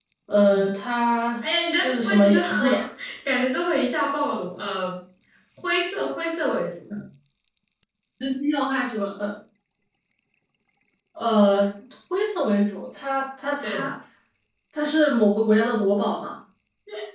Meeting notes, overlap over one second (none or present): present